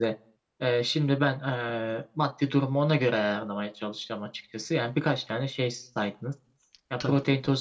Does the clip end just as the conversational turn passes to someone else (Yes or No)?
No